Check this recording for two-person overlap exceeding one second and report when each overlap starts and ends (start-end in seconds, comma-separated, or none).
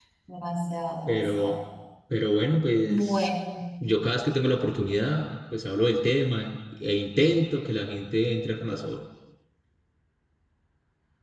none